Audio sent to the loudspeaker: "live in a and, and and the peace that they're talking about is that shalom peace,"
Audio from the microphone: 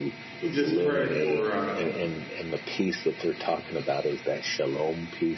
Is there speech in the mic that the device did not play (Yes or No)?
Yes